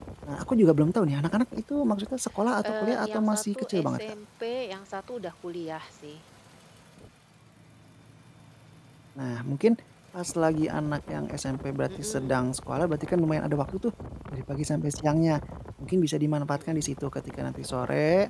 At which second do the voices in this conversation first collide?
2.6 s

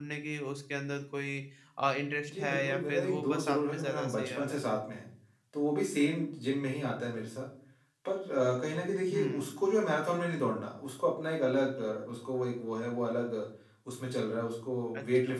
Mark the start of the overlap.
2.3 s

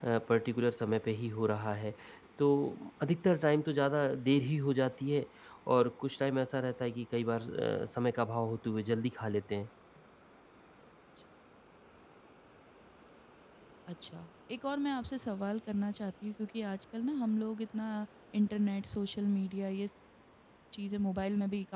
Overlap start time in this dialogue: none

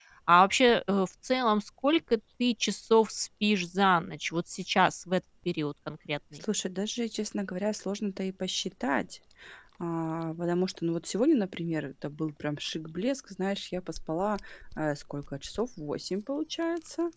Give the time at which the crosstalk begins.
none

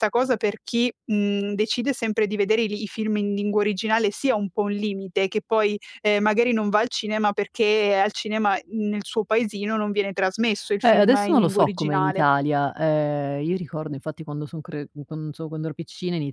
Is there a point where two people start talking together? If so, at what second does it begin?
10.8 s

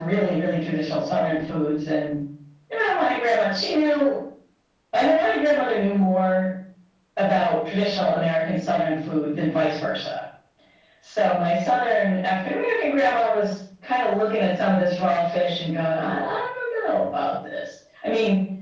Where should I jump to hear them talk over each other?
none

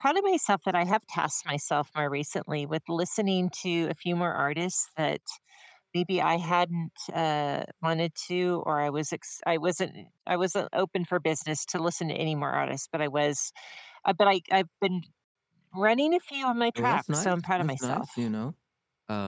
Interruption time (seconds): 16.8 s

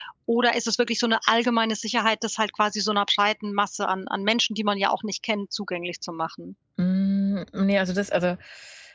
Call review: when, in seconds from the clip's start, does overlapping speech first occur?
none

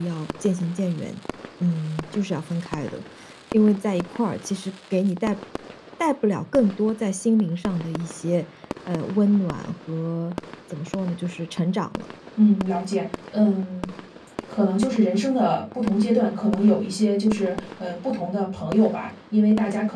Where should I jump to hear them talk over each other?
none

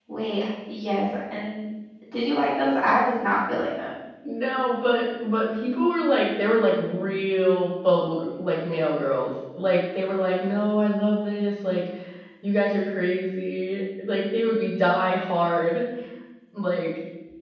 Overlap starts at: none

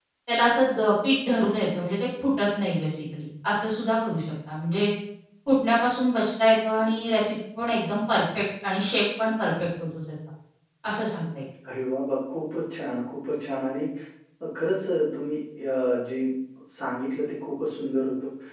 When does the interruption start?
none

